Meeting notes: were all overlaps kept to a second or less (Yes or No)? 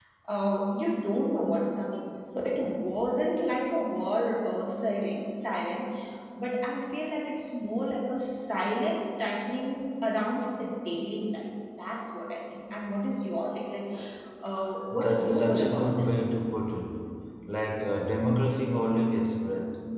No